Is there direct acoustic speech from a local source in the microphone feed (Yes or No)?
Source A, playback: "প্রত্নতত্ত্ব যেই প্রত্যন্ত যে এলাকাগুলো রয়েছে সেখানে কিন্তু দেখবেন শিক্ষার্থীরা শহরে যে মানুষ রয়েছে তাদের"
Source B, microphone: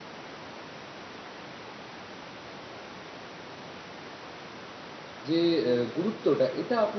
Yes